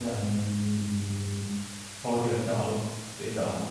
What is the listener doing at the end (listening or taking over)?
listening